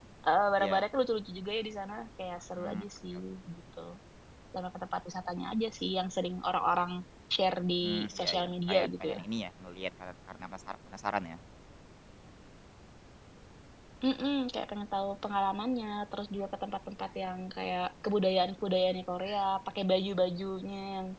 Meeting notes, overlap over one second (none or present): present